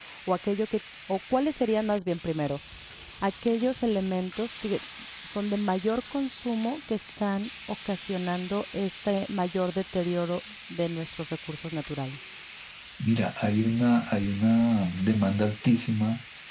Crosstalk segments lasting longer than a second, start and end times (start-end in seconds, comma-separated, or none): none